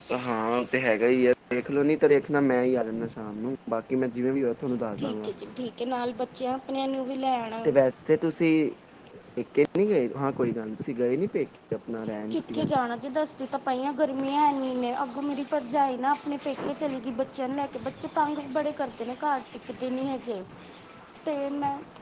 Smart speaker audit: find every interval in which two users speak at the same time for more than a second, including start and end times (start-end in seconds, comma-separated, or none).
none